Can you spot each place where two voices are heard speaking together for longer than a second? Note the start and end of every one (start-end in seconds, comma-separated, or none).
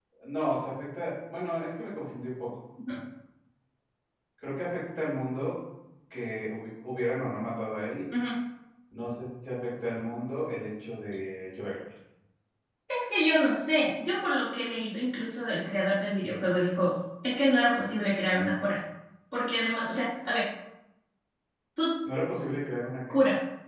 none